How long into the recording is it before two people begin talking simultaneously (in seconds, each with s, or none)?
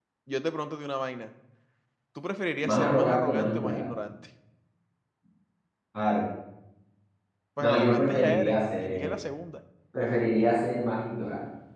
2.6 s